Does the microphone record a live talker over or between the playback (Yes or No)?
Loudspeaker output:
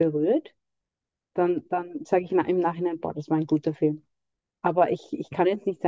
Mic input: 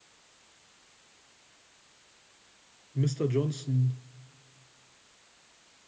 Yes